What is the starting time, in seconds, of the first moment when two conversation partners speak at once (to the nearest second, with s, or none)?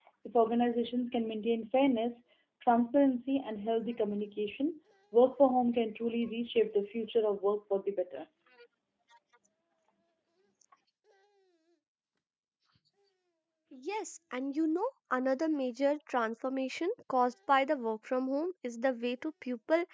none